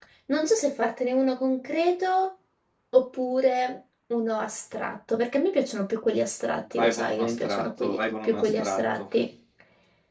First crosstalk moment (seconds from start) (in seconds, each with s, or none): 6.8 s